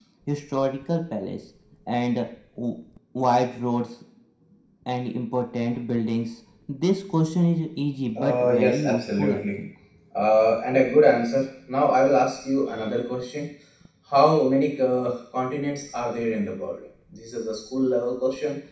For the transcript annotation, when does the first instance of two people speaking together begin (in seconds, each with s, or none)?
8.2 s